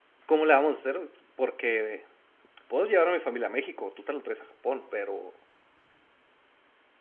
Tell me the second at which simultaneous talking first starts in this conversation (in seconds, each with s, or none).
none